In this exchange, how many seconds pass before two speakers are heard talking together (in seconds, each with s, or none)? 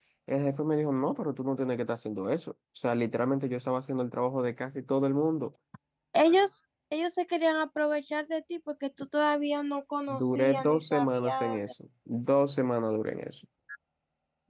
10.1 s